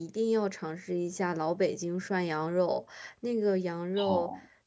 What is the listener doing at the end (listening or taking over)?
listening